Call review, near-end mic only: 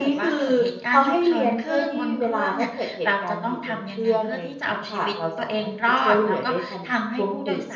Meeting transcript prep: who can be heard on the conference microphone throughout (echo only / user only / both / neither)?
both